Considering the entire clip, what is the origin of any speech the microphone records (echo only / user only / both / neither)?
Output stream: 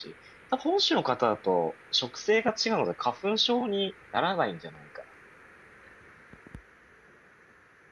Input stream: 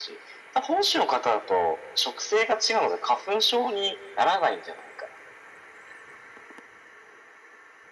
echo only